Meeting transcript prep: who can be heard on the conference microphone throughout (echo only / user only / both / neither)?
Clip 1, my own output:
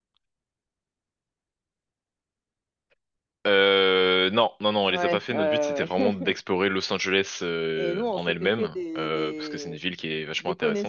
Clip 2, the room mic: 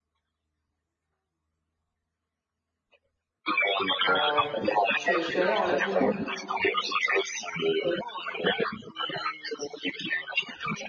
both